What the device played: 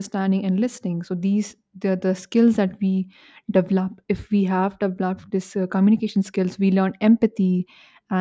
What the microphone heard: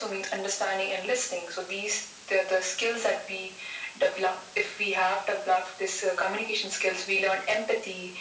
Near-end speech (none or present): none